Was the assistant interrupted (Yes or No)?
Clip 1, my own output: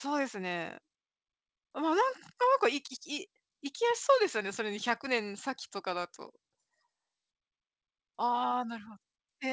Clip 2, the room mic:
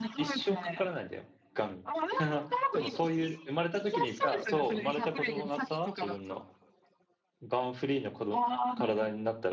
Yes